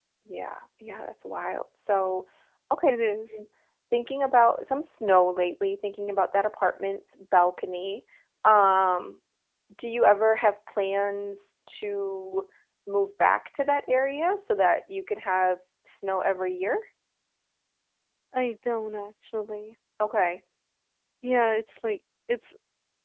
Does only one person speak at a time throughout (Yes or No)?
Yes